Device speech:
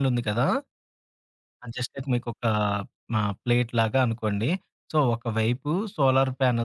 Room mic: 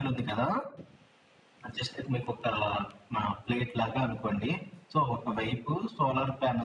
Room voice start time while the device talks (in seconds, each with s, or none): none